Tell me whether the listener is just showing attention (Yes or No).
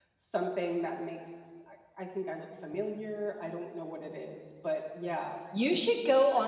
No